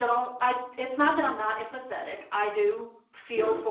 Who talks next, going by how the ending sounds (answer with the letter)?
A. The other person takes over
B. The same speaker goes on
B